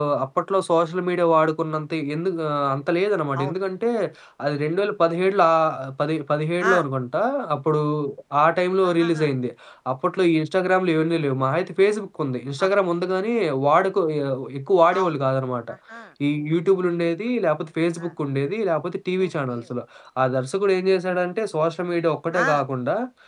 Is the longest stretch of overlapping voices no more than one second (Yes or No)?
Yes